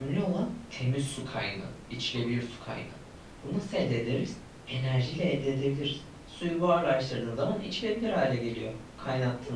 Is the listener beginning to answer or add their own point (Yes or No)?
Yes